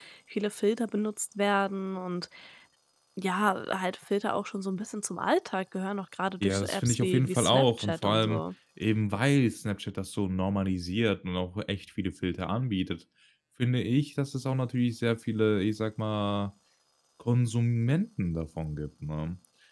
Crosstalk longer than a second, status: present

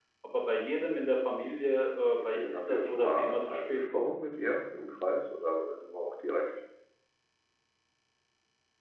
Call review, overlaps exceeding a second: present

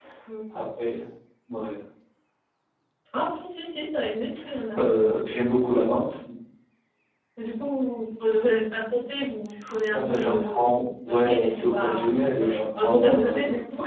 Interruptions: present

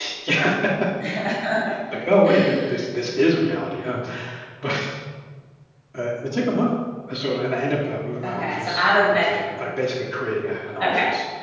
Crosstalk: present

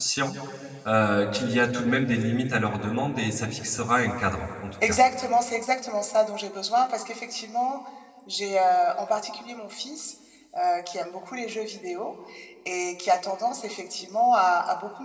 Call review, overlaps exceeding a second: none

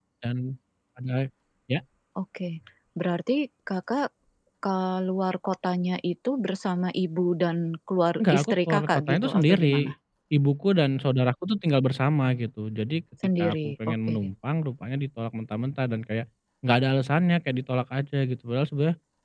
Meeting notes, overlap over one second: present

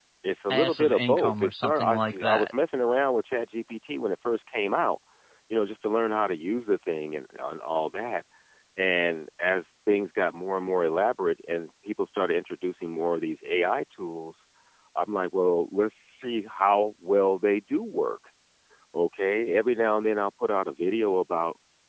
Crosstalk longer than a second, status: present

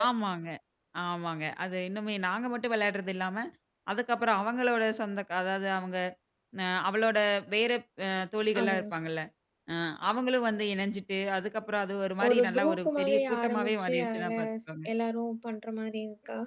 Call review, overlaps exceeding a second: present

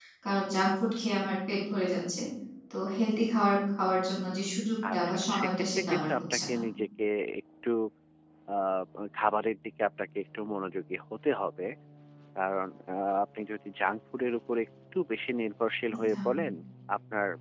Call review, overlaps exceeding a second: present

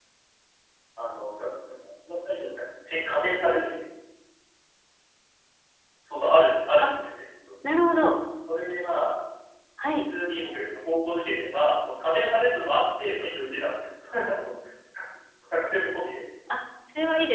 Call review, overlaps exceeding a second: none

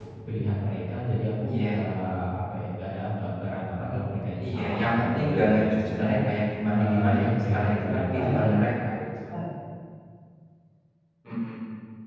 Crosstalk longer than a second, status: present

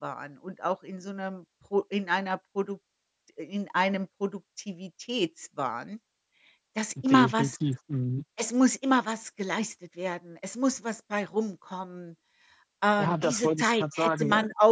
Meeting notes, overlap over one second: present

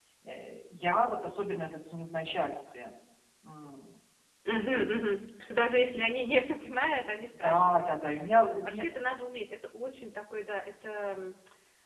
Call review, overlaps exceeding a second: none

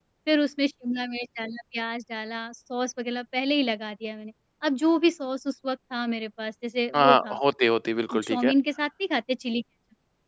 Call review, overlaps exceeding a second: none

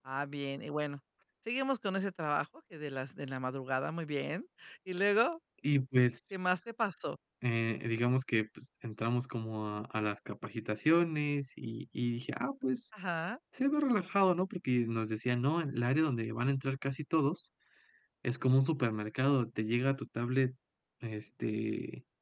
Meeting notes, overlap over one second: none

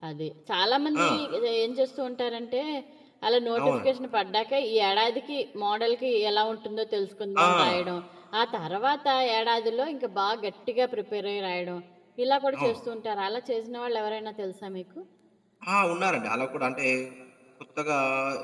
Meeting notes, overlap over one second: none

